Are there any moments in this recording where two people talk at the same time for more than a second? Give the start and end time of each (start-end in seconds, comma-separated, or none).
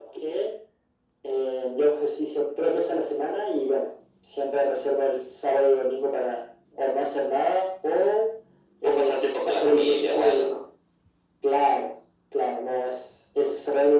8.8-10.6